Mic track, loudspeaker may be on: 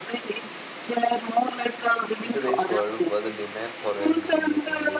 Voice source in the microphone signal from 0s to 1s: echo only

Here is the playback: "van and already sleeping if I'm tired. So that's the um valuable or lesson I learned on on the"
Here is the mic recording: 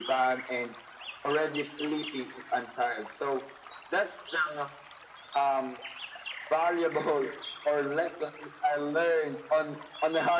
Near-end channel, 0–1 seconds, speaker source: echo only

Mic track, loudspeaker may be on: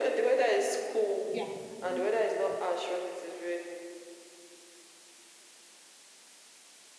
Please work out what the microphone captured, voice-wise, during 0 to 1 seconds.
echo only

